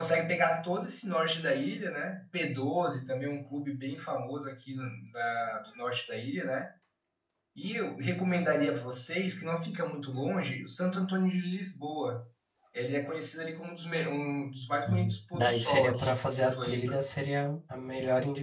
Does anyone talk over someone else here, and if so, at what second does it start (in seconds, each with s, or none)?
14.8 s